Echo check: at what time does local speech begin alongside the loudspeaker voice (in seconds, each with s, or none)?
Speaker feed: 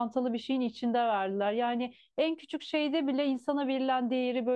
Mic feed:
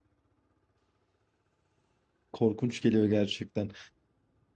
2.3 s